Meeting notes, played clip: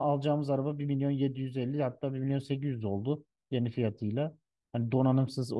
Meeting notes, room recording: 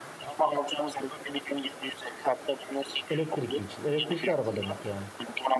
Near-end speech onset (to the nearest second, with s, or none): 3 s